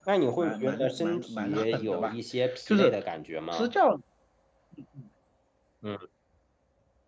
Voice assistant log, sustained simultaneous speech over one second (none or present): present